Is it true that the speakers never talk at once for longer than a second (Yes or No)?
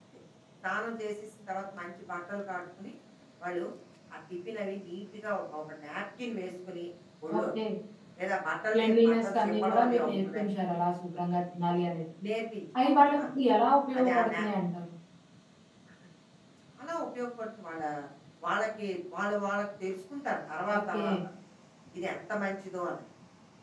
No